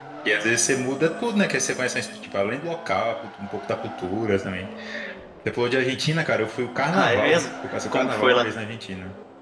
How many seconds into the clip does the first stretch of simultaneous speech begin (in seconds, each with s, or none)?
6.9 s